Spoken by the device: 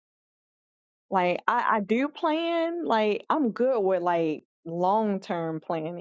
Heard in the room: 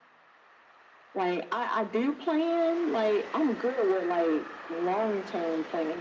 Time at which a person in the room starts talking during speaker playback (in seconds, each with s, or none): none